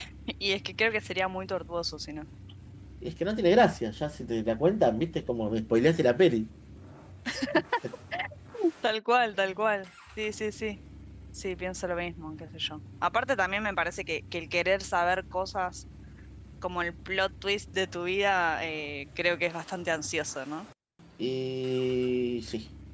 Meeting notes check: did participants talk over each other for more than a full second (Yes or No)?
No